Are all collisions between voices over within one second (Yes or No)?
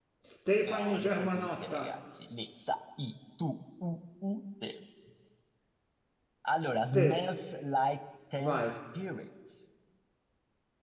No